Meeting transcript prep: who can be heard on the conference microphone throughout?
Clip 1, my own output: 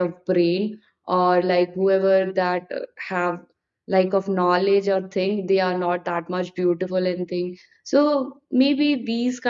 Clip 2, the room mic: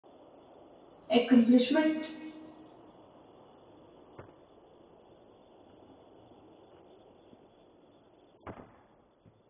user only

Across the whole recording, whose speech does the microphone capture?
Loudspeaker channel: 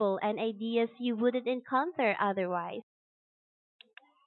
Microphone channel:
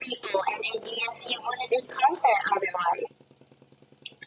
echo only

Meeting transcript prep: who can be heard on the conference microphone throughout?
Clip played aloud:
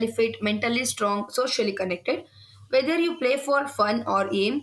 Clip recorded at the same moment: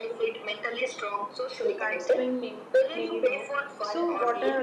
both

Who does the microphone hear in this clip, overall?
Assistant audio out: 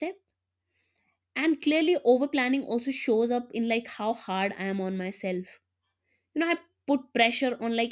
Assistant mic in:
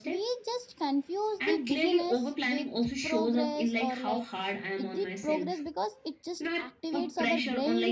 both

